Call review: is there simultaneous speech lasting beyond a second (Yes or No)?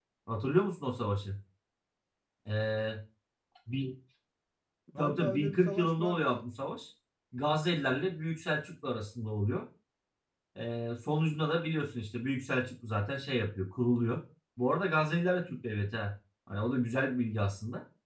Yes